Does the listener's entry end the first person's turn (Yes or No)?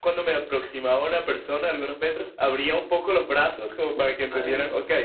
No